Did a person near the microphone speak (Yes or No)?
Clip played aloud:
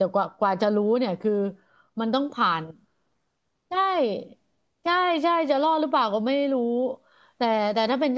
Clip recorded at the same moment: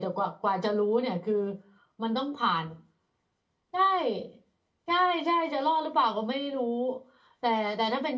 No